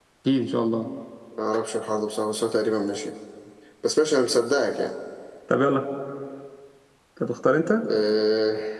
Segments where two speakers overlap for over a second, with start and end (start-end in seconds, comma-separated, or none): none